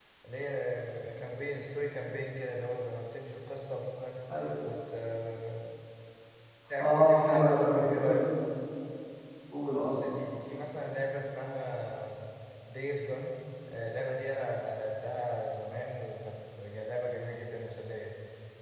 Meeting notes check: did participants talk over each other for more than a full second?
Yes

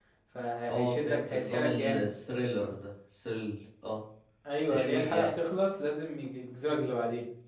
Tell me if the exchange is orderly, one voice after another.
No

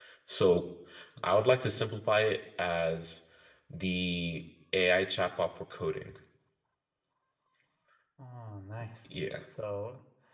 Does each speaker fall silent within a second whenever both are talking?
Yes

